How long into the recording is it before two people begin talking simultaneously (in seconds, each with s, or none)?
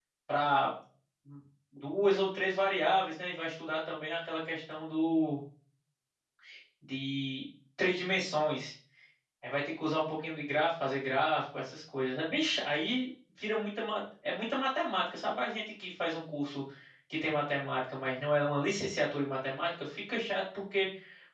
none